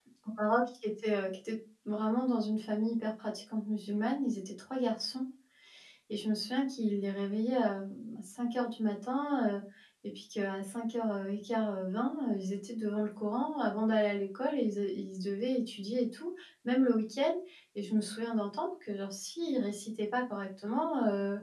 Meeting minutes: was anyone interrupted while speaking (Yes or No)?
No